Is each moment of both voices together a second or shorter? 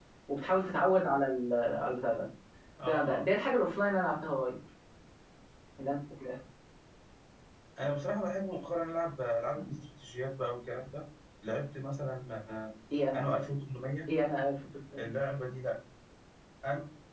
Yes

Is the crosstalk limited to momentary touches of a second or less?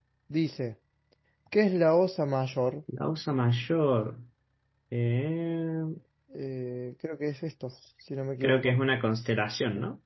Yes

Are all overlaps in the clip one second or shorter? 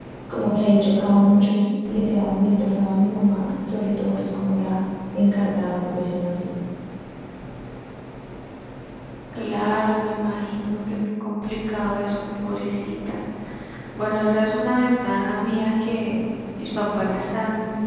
Yes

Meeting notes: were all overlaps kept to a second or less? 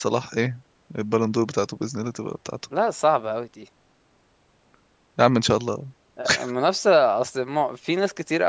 Yes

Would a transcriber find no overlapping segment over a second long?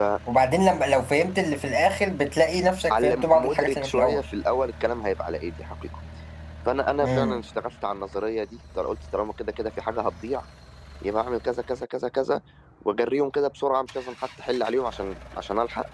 No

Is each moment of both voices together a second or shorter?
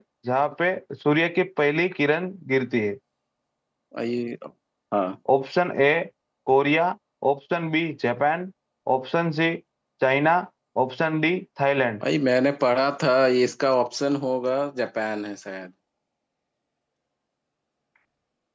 Yes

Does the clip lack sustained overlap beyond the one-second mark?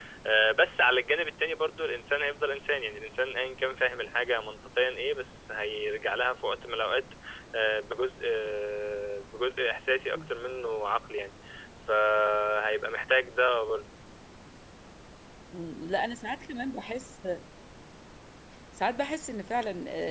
Yes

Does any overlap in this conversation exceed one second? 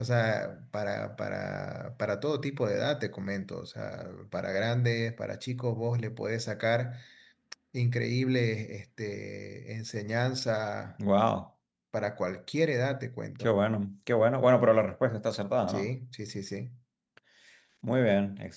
No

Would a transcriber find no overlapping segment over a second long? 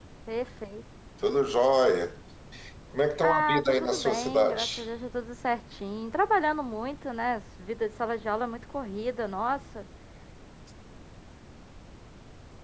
No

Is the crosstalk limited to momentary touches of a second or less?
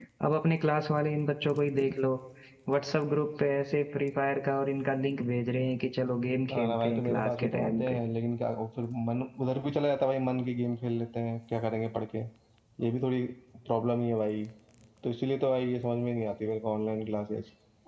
No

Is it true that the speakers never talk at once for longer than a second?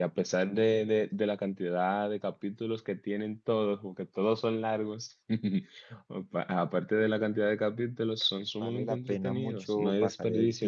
No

